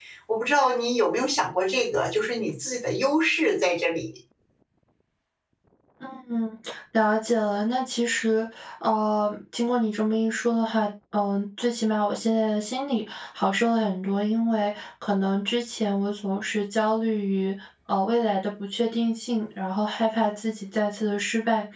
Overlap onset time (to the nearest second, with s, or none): none